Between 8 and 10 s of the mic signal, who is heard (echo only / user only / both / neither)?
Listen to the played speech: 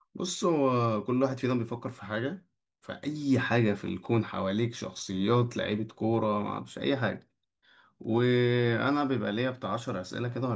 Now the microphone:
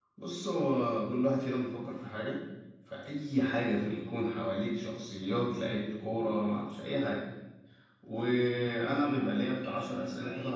both